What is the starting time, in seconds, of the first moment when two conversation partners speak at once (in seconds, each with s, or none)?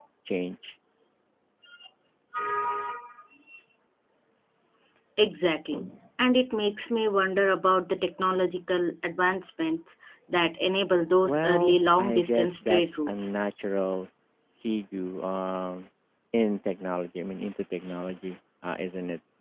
11.2 s